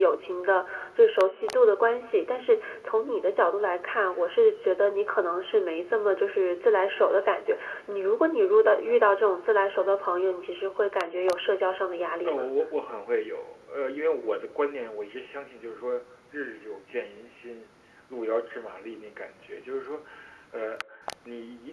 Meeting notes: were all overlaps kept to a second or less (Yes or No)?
Yes